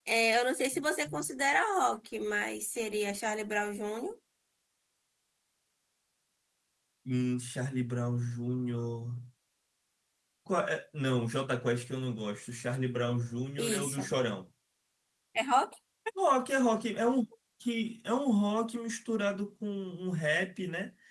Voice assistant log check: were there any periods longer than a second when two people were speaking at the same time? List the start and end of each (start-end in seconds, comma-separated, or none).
none